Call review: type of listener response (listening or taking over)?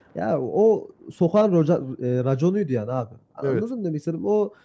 listening